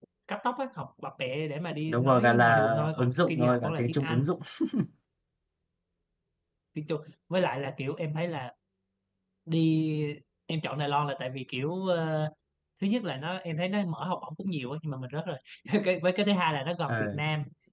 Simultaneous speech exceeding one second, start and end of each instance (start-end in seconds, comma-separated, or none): 1.9-4.2